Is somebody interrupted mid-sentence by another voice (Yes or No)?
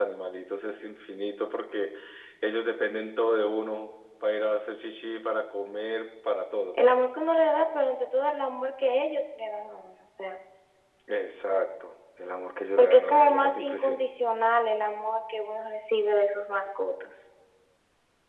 Yes